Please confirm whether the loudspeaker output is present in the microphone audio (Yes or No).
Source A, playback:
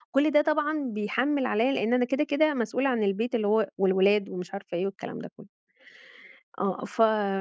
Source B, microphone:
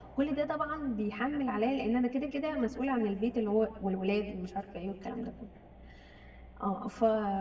Yes